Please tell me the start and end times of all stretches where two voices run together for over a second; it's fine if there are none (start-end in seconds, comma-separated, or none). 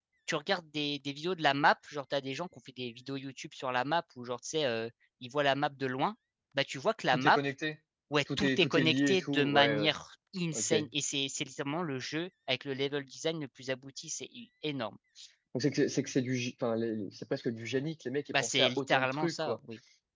8.4-9.9, 18.3-19.6